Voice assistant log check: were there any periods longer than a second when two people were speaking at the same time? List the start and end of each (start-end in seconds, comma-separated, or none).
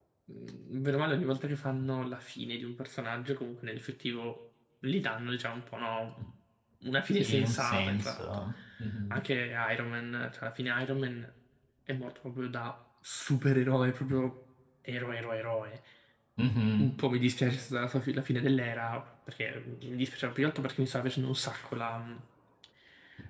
7.2-8.4